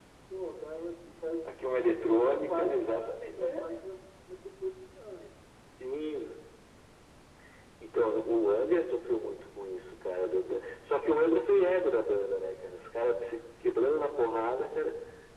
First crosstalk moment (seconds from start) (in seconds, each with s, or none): 2.0 s